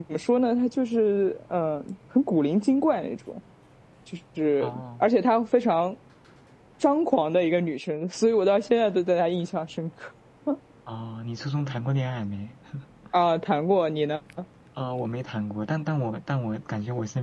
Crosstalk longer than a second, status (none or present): none